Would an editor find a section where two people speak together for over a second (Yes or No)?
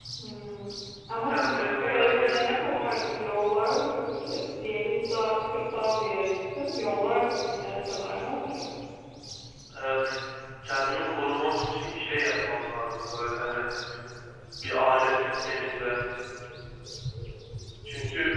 Yes